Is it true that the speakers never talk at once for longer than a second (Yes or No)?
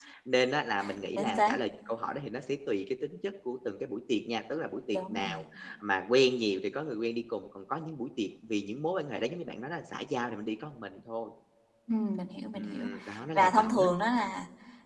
Yes